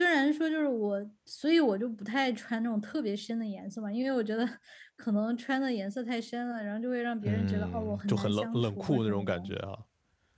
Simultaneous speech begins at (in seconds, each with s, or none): 7.2 s